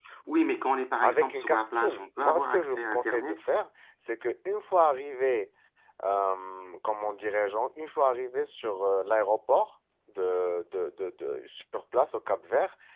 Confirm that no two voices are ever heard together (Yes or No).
No